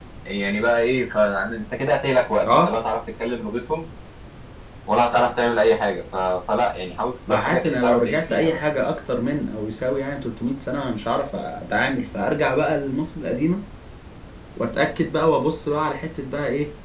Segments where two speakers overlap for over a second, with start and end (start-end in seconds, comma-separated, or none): 7.3-8.6